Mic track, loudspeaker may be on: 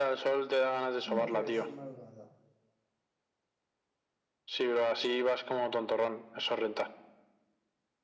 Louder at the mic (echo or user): echo